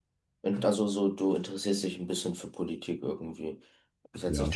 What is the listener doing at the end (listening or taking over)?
listening